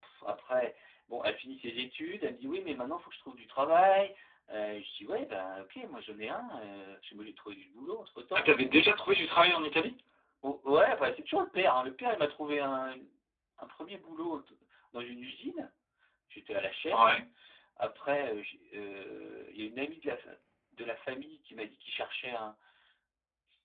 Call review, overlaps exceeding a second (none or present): none